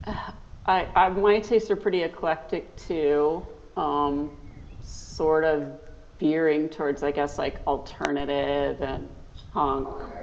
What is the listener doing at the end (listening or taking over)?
listening